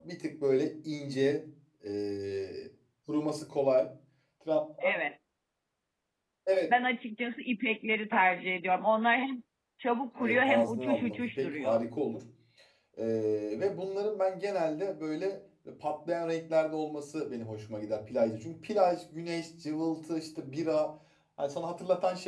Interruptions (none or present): present